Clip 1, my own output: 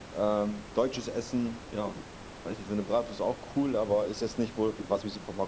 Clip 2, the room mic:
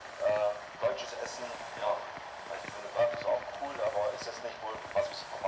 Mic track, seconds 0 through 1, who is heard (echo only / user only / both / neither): echo only